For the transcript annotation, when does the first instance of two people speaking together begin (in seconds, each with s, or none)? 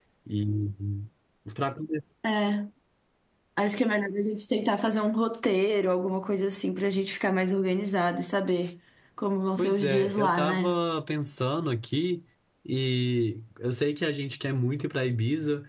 9.6 s